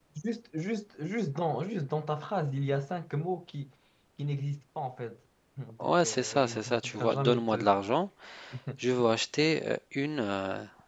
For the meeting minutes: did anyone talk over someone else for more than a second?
Yes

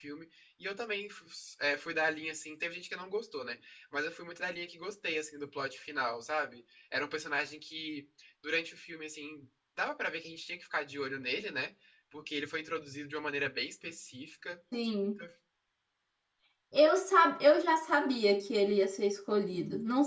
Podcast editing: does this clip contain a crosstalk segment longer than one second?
No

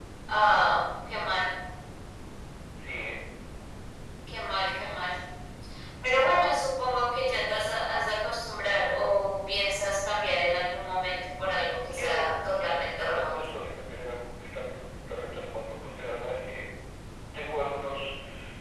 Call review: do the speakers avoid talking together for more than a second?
No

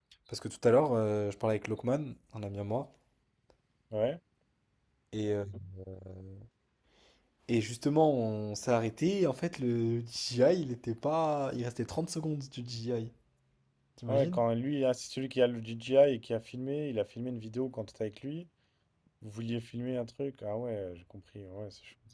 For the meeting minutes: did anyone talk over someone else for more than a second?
No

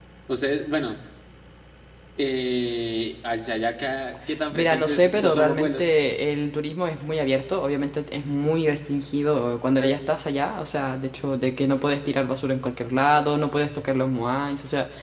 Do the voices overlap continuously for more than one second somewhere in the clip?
Yes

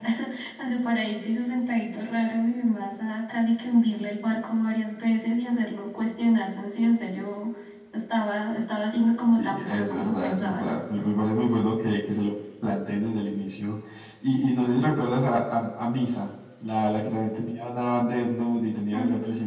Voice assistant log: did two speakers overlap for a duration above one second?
Yes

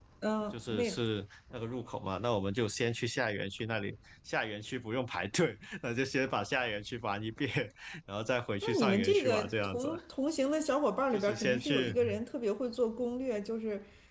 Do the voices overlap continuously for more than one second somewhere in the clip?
Yes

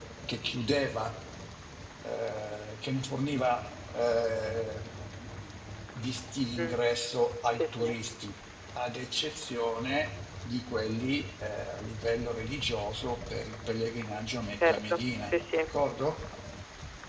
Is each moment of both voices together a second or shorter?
No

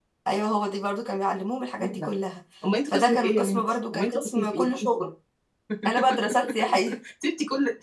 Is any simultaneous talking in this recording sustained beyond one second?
Yes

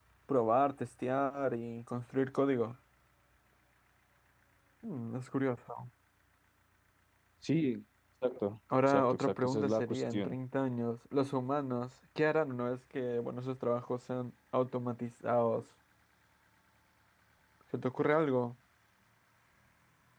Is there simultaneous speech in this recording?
Yes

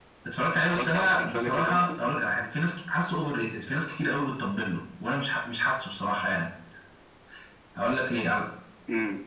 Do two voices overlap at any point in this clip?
Yes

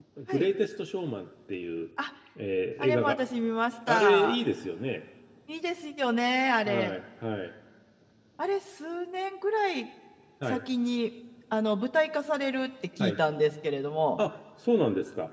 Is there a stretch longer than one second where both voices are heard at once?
No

